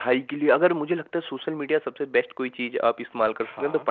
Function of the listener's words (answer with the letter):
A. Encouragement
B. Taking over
A